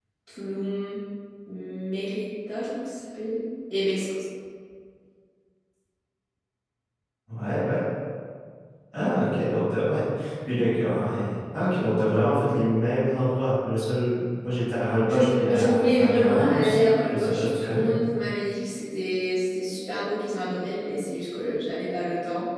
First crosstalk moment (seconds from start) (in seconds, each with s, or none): 15.1 s